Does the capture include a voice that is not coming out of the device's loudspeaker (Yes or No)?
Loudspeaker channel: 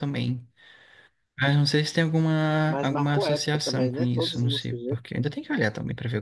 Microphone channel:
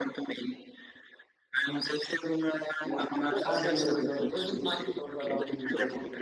Yes